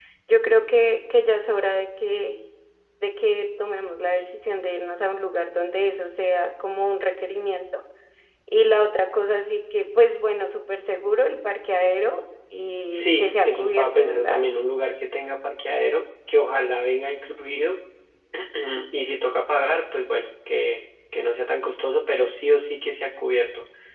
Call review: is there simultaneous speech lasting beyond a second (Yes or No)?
Yes